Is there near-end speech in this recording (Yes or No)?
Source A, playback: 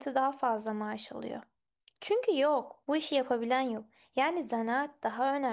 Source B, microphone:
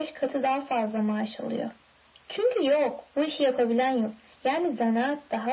No